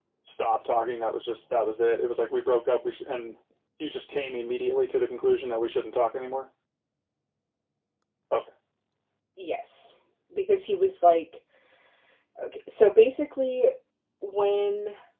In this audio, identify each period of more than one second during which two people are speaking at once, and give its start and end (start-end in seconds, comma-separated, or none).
none